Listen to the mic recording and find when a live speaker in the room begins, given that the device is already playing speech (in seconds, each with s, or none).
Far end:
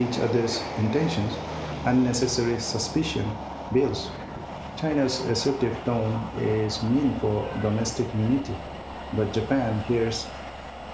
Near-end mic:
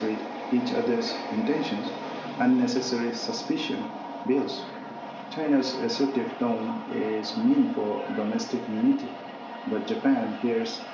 none